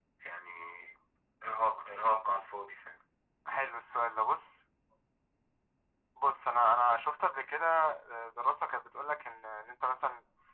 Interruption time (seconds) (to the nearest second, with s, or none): none